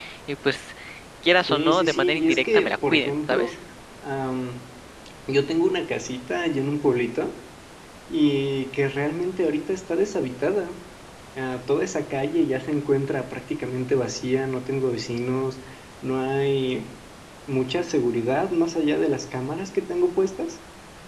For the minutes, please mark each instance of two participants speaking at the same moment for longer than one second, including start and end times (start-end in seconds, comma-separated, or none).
1.5-3.5